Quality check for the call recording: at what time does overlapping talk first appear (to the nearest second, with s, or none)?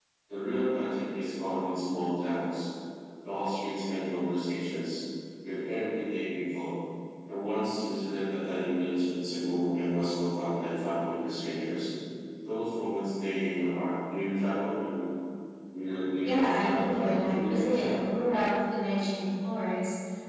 16 s